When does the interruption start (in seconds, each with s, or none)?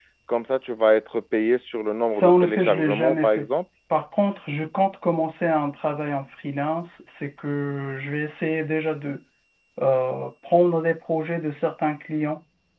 2.1 s